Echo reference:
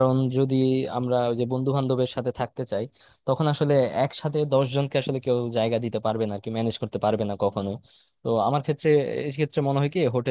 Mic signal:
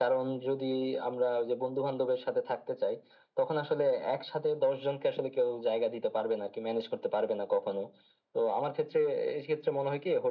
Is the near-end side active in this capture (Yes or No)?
No